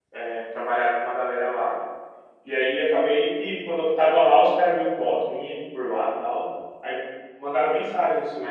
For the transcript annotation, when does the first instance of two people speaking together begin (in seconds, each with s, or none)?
none